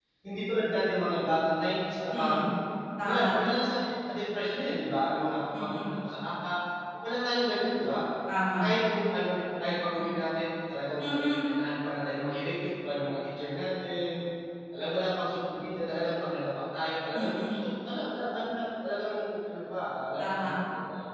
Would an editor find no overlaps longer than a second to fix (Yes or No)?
Yes